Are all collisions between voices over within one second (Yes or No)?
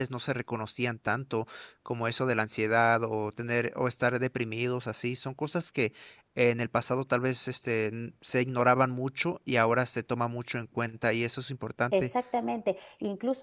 Yes